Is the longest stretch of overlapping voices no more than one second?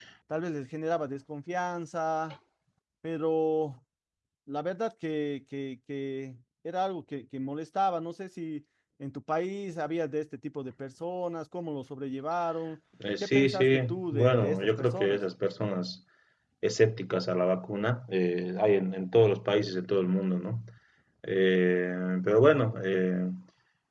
No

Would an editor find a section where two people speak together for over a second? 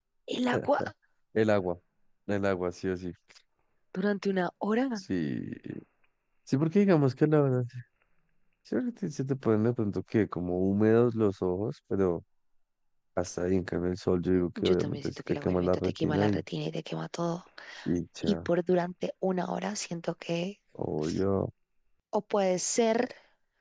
Yes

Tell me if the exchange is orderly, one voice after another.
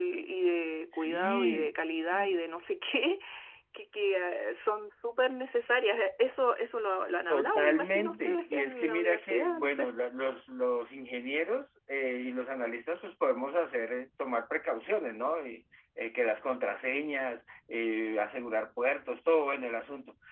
No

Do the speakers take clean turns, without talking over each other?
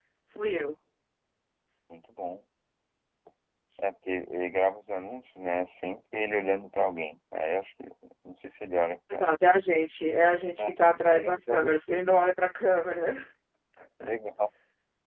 No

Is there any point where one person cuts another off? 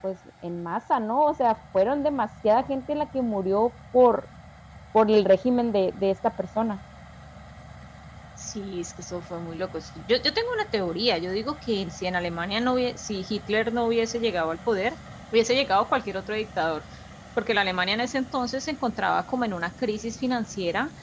No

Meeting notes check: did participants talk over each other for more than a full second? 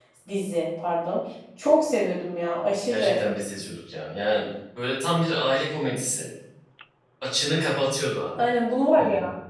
No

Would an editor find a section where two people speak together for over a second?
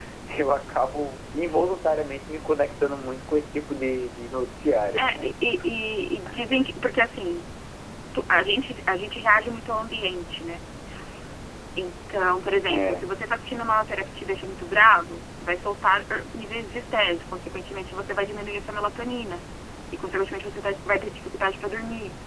No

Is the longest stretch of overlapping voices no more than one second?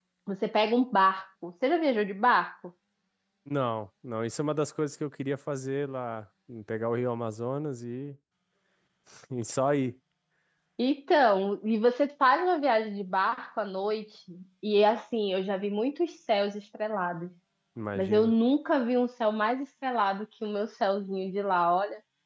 Yes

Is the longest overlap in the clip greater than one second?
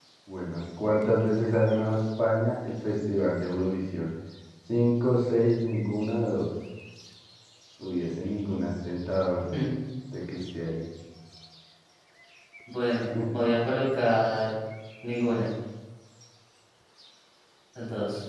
No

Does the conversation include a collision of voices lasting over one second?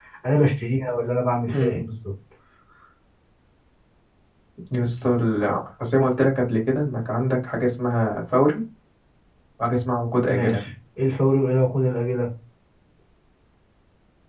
No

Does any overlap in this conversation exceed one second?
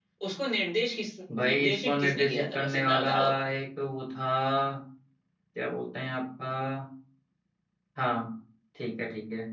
Yes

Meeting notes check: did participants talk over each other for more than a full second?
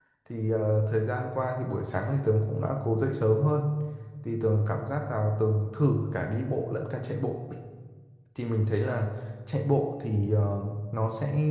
No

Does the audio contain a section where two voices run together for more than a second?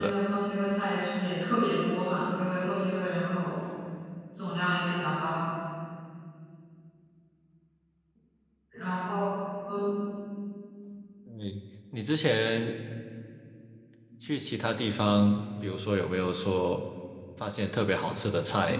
No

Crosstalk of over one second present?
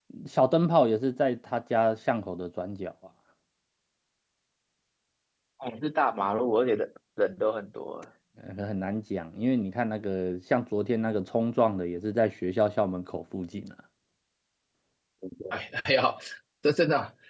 No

